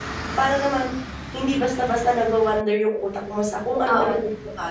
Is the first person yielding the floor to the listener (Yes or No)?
Yes